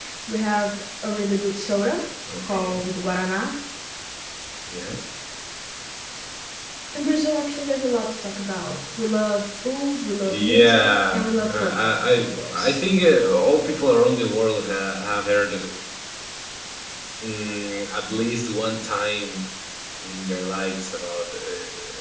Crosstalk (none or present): present